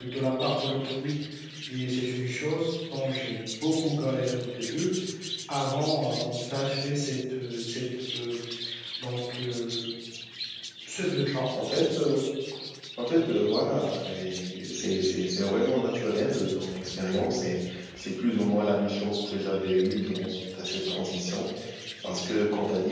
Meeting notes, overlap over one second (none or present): none